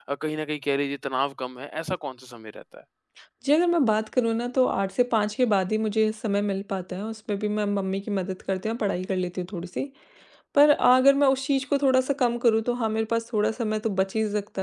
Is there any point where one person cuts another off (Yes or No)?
No